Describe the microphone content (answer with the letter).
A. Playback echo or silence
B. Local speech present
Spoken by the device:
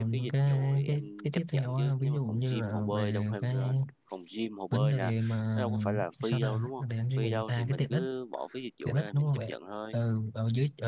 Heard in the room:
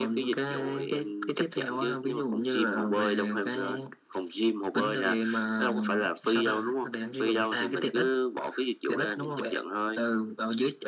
A